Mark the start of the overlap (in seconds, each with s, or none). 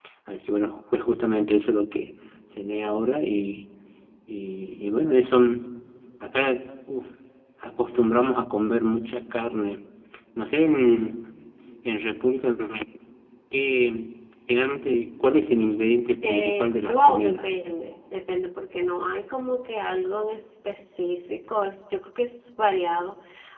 16.2 s